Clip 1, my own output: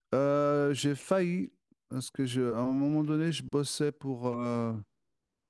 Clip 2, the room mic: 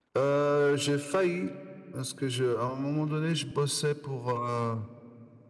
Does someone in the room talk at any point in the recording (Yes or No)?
No